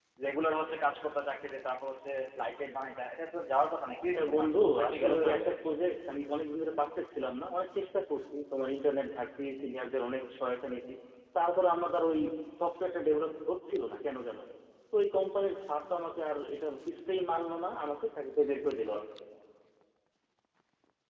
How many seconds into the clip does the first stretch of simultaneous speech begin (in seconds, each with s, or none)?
4.1 s